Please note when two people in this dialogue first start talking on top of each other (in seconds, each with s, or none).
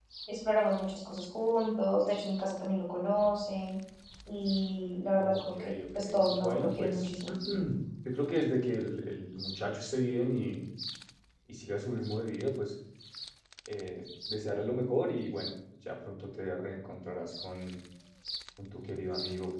5.2 s